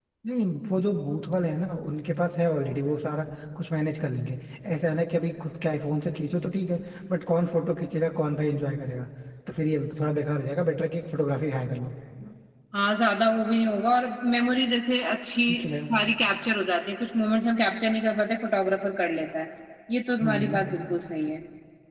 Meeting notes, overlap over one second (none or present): none